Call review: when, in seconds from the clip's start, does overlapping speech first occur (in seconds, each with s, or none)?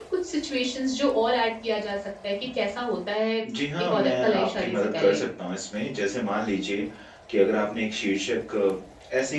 3.8 s